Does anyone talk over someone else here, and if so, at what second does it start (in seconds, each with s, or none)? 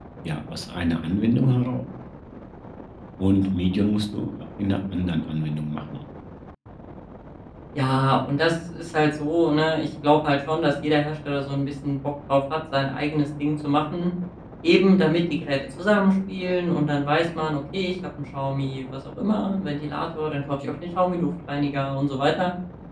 none